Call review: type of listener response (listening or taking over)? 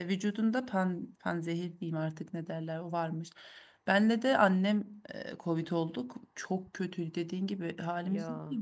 listening